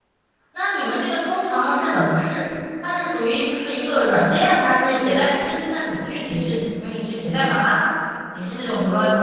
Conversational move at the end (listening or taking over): listening